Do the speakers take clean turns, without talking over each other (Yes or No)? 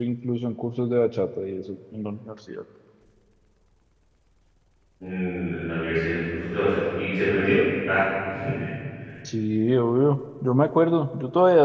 Yes